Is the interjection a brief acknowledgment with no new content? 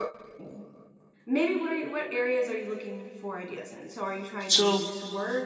Yes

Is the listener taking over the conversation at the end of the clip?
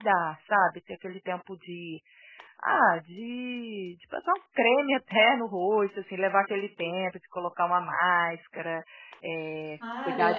Yes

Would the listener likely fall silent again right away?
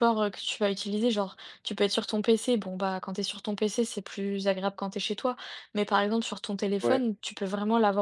Yes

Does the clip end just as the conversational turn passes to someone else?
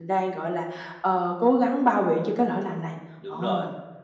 Yes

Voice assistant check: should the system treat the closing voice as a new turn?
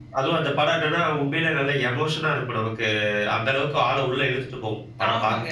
Yes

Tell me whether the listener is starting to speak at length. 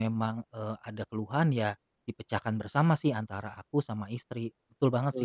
Yes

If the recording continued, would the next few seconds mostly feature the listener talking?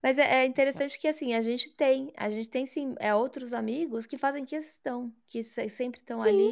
No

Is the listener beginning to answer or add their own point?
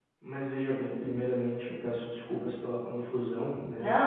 No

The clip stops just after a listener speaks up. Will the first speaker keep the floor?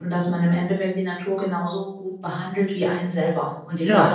Yes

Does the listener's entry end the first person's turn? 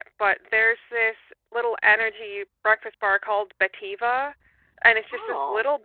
No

